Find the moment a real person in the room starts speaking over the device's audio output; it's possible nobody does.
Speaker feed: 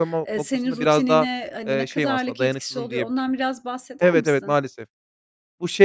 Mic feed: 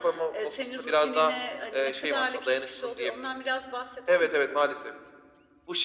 none

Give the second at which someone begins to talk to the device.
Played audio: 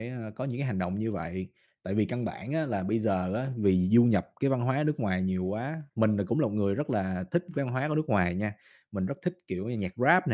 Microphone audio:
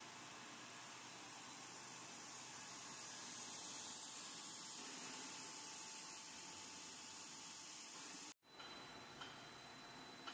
none

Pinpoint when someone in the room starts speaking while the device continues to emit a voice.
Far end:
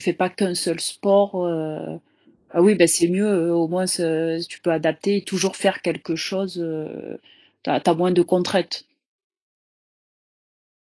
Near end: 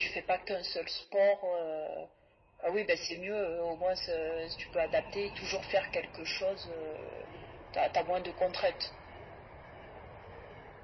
none

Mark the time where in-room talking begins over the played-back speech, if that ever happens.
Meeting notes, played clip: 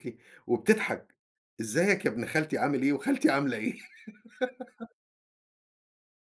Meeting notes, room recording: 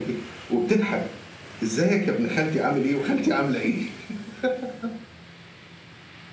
none

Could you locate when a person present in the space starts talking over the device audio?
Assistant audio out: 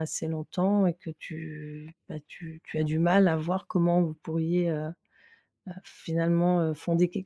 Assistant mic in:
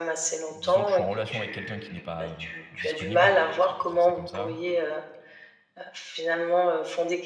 0.5 s

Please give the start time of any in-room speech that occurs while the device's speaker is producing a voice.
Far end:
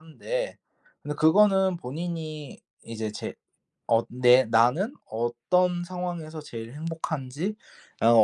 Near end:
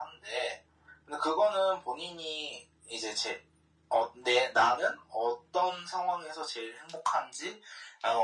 none

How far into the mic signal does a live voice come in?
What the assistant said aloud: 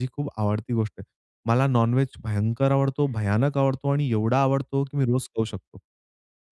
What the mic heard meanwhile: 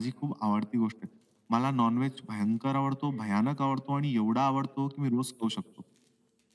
none

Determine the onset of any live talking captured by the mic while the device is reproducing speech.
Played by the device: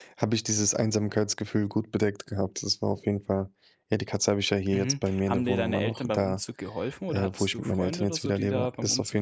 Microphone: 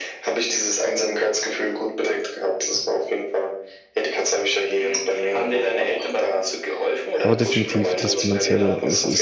7.2 s

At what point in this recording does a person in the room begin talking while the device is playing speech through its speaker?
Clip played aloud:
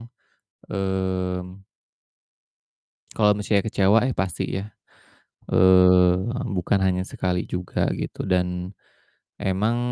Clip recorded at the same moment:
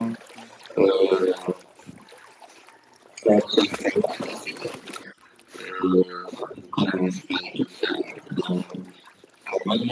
none

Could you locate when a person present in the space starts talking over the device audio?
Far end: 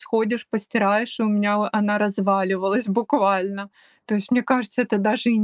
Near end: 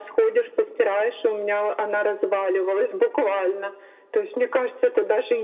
none

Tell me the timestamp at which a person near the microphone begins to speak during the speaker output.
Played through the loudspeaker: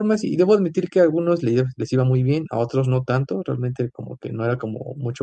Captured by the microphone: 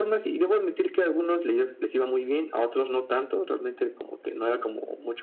none

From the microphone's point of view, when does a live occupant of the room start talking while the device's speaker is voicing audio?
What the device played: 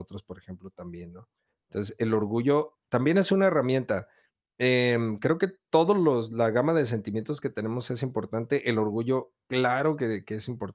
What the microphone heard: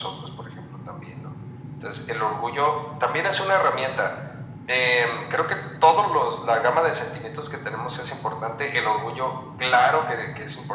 none

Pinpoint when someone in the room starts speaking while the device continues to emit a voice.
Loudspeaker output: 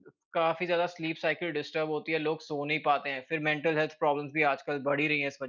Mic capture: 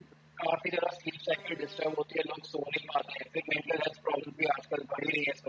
none

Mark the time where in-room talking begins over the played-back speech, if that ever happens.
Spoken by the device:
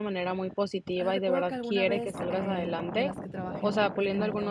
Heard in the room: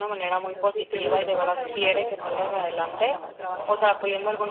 0.4 s

